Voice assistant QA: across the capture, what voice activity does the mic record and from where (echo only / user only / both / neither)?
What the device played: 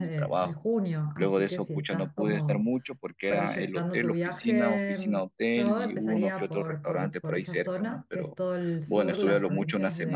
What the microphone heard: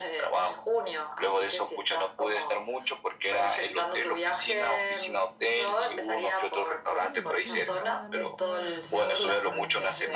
both